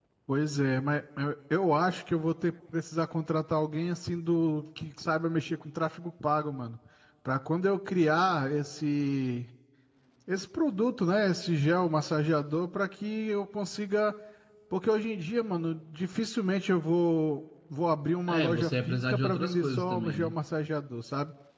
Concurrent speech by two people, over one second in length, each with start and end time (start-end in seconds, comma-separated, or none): 18.3-20.3